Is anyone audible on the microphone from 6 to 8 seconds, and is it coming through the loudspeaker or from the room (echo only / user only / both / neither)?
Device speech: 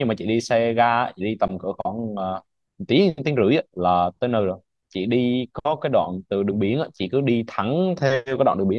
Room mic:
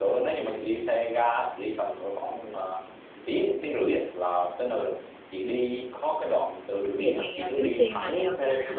both